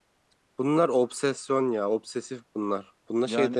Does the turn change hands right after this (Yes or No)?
No